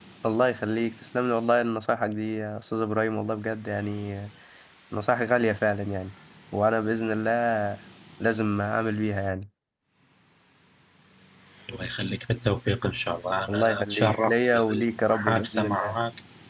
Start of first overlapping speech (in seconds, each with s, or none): 13.5 s